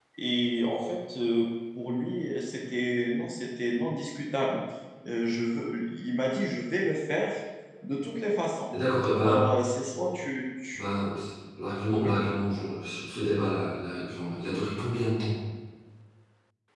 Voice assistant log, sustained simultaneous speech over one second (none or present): none